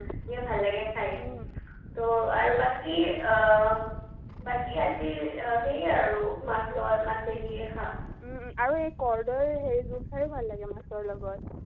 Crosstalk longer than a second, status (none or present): none